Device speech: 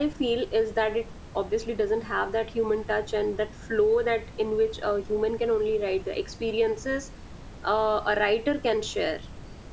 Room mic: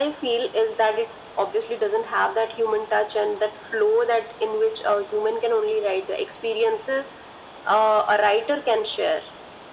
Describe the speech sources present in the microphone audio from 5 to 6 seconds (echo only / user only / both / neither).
echo only